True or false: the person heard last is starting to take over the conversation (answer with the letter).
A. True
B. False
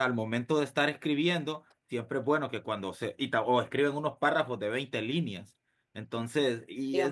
B